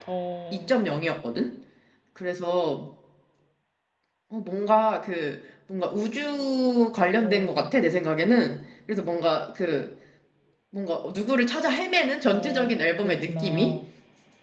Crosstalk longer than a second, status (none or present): present